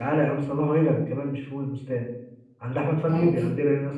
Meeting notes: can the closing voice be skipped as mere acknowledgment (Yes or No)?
Yes